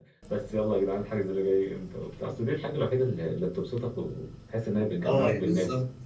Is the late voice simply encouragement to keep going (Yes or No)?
No